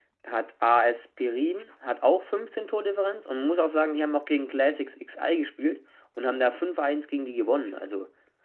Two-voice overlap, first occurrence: none

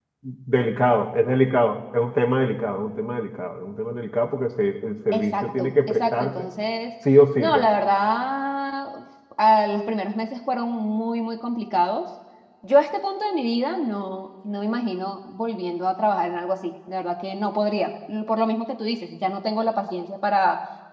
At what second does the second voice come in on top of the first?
5.1 s

